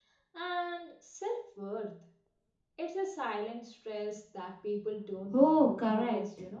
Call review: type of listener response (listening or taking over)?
taking over